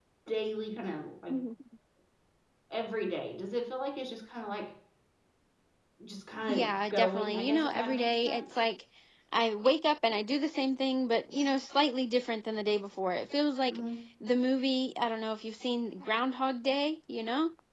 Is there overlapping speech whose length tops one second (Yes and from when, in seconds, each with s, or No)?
Yes, from 6.5 s